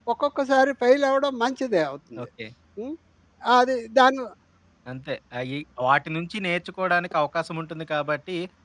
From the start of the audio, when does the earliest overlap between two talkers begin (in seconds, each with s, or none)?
none